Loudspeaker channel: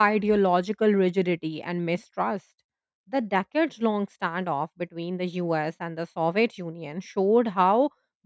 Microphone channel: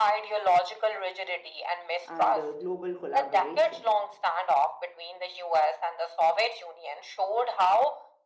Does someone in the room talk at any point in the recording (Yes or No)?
Yes